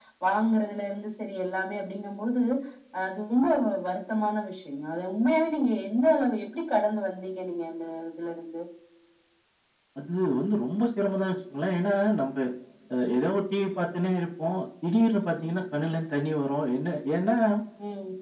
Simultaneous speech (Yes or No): No